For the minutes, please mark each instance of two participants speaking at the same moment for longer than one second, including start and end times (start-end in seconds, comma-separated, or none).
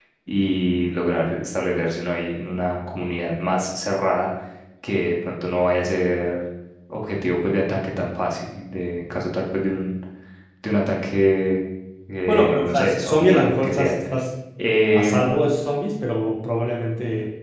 12.3-13.9